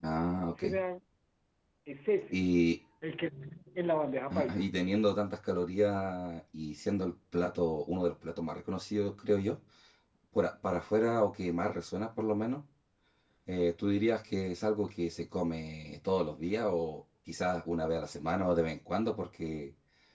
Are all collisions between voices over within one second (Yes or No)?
Yes